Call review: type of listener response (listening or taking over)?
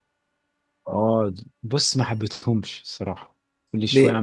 listening